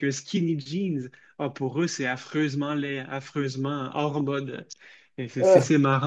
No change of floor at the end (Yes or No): Yes